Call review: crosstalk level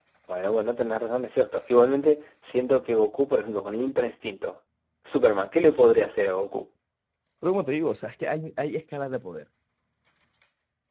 none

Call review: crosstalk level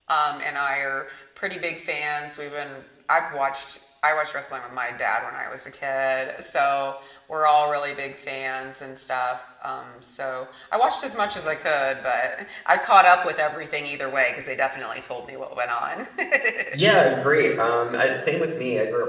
none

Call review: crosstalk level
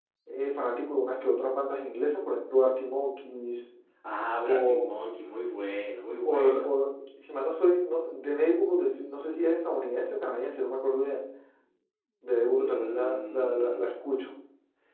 present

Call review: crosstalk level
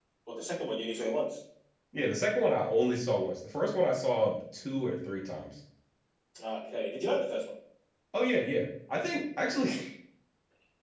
none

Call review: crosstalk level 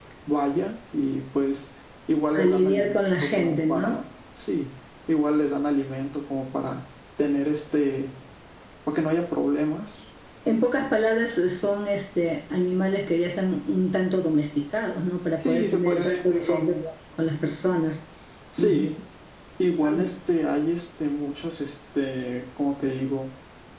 present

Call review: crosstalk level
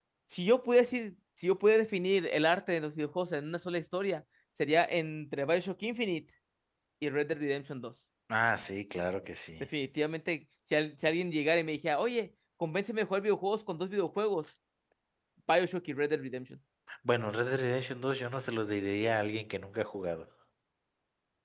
none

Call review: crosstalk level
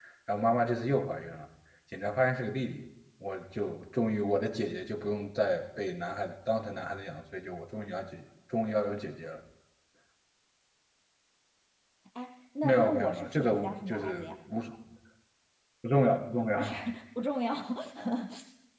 present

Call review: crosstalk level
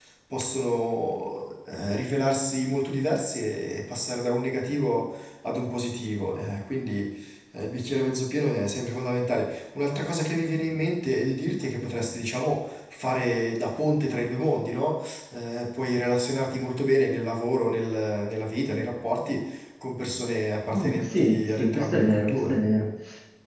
present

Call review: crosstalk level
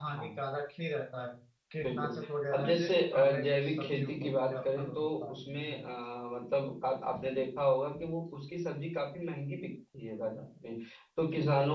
present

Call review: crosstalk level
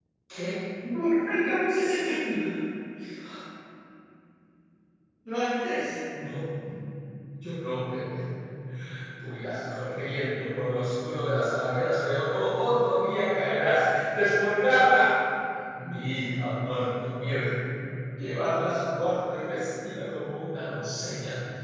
none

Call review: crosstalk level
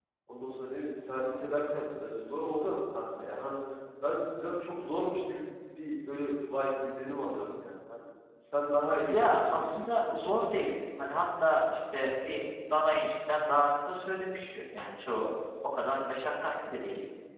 present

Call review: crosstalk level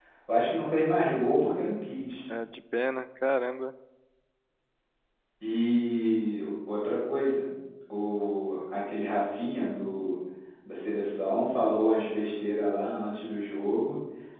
none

